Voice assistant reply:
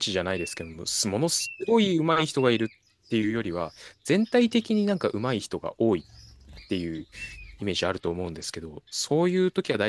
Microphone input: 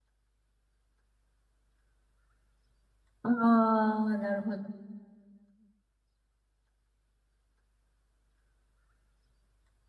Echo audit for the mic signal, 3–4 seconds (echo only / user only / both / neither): user only